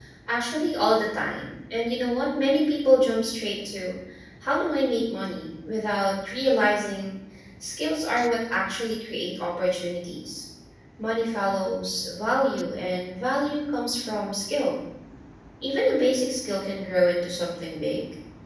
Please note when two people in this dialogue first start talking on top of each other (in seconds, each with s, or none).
none